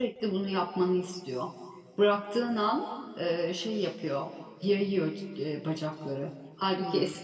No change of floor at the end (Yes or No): Yes